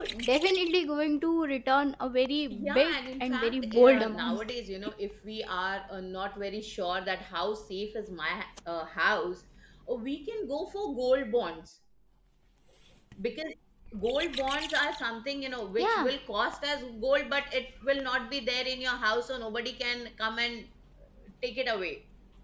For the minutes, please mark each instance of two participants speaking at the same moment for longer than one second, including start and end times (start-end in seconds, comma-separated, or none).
2.5-4.4